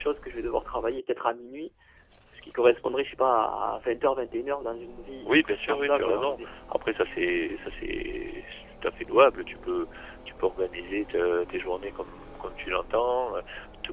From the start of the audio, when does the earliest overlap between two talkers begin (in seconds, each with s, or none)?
5.2 s